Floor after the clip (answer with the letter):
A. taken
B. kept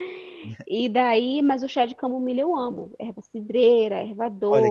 A